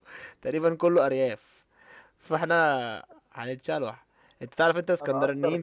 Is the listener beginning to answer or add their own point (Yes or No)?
No